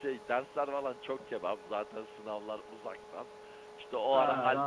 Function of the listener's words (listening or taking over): listening